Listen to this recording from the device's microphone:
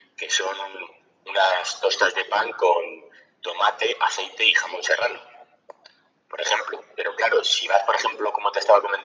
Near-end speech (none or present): none